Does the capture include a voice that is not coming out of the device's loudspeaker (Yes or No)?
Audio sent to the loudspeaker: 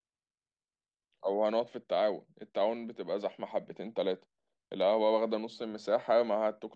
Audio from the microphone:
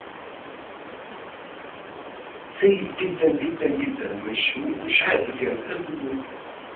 Yes